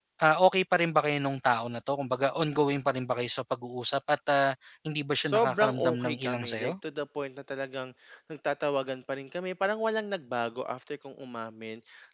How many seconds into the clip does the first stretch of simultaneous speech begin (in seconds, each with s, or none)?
5.2 s